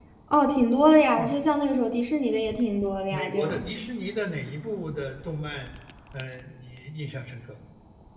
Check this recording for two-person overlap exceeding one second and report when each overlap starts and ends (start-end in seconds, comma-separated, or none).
none